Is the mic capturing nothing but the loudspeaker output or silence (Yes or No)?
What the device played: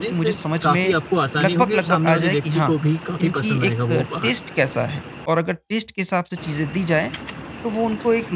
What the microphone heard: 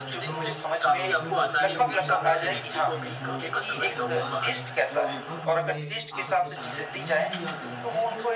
No